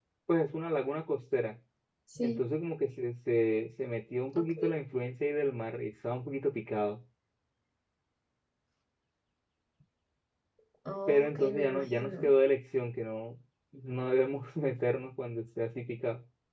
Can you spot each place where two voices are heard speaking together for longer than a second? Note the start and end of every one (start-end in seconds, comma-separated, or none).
11.1-12.3